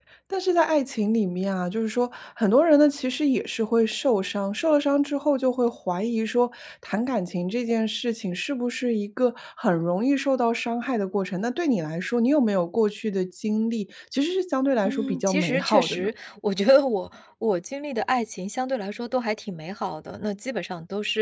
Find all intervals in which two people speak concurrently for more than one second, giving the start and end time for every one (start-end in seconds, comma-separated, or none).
14.8-16.1